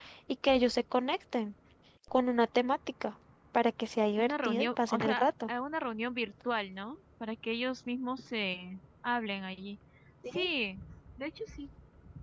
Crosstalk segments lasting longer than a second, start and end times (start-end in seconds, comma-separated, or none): 4.2-5.5